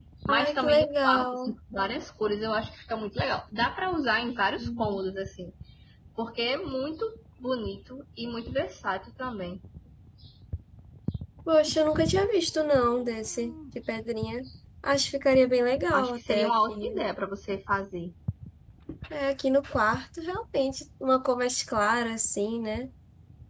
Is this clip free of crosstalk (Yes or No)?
No